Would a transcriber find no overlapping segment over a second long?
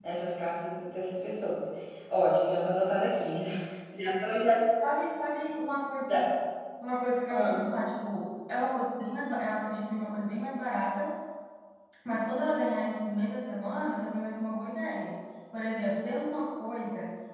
Yes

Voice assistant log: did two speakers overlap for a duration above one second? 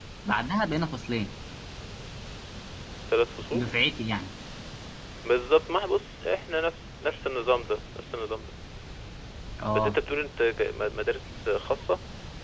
No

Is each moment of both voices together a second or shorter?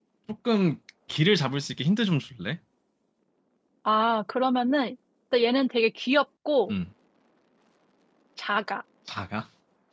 Yes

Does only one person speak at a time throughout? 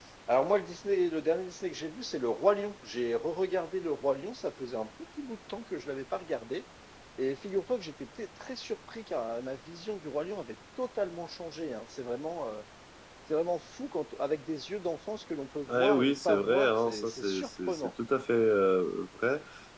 No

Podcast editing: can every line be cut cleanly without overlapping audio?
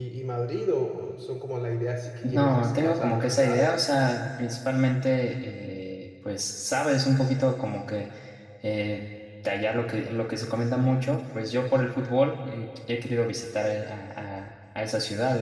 No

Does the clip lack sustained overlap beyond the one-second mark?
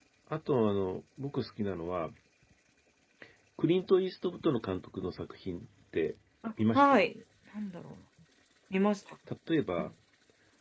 Yes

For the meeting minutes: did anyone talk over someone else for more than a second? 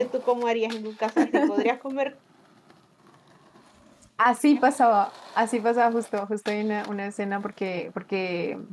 No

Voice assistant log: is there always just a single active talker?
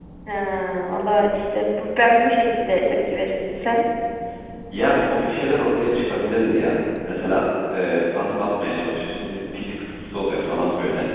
Yes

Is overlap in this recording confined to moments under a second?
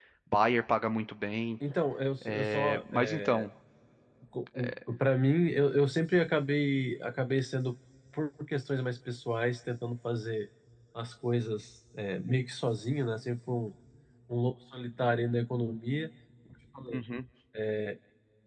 No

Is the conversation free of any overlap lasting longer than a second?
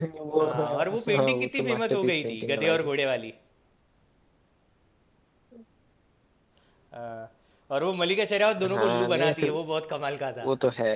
No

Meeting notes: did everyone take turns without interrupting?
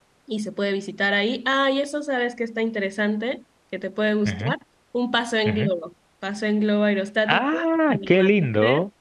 No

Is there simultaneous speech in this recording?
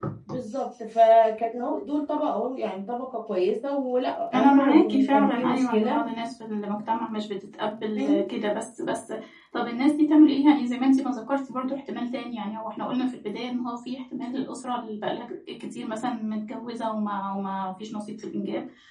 Yes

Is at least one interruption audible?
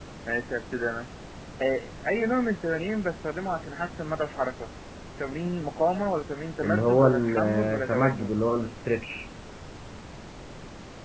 Yes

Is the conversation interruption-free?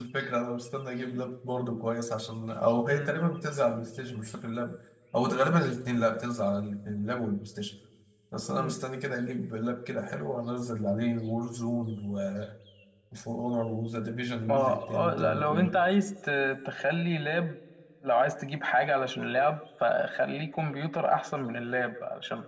No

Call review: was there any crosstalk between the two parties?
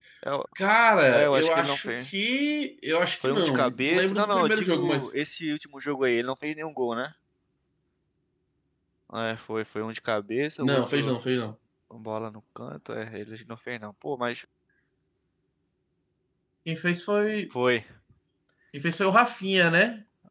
Yes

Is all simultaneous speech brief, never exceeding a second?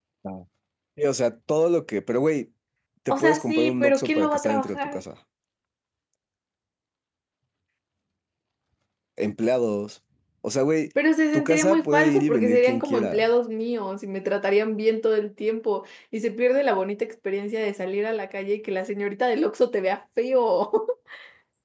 No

